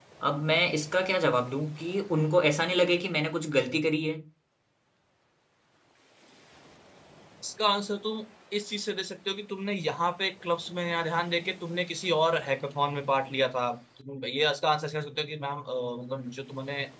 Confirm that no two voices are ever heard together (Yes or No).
Yes